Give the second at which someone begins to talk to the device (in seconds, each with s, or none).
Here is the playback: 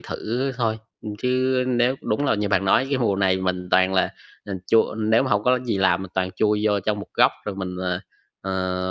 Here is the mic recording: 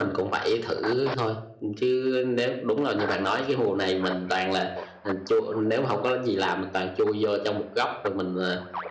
none